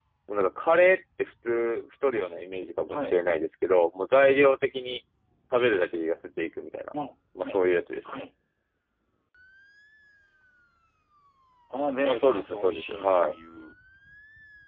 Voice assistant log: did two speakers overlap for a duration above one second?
Yes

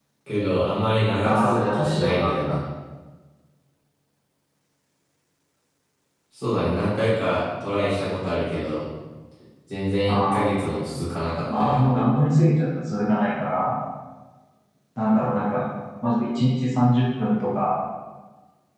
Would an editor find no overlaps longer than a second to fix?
No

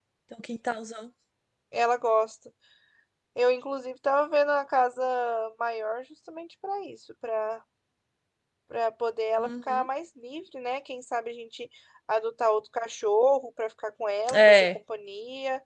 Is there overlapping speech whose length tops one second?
No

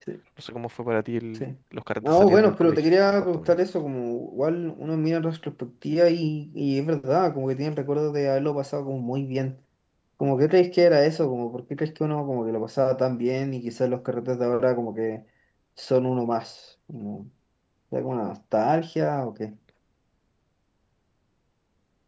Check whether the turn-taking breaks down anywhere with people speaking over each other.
Yes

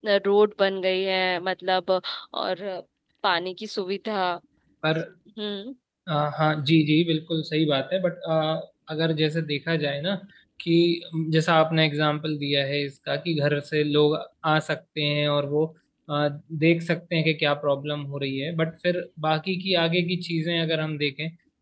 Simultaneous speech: No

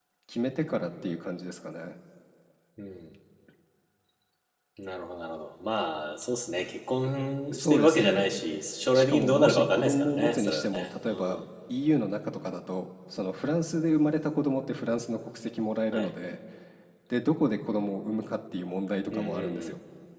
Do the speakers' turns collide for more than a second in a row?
Yes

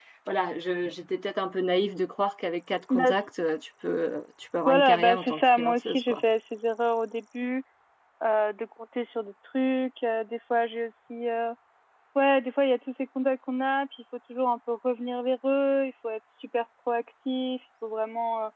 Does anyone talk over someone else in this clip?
Yes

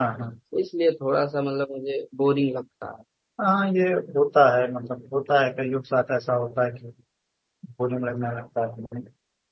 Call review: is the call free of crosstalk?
Yes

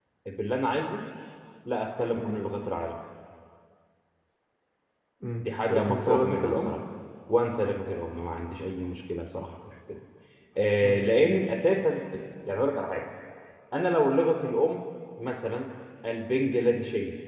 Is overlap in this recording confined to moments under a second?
No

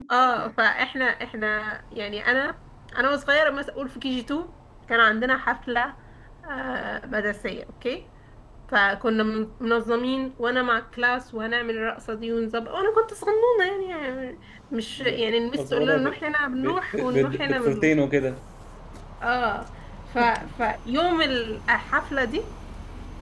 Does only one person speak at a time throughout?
No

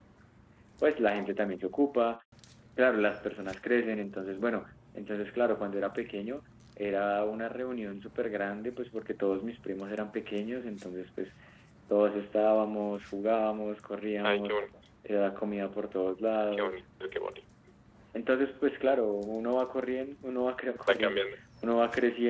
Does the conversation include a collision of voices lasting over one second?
No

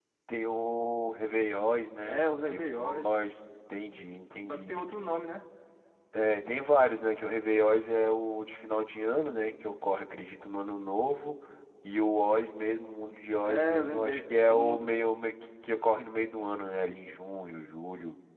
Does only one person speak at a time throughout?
No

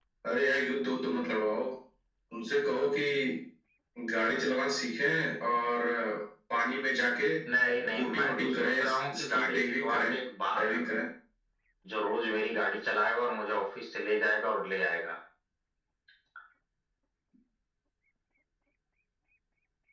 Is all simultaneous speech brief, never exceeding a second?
No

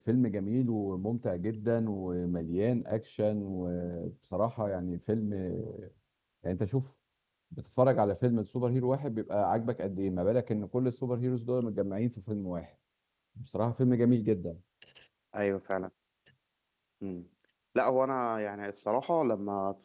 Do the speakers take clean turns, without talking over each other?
Yes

